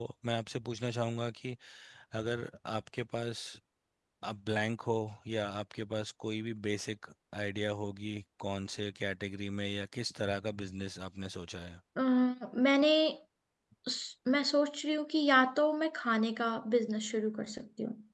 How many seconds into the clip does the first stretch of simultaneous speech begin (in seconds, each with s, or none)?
none